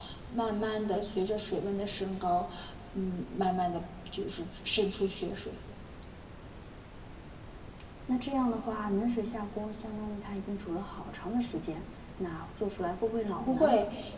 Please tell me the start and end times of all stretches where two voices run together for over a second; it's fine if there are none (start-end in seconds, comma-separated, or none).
none